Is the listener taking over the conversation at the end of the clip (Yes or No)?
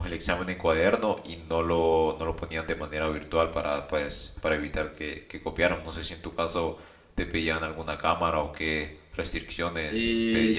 Yes